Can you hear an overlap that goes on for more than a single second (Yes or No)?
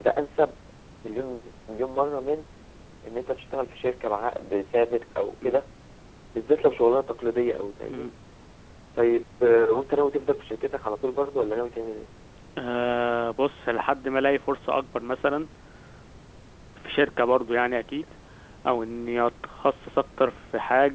No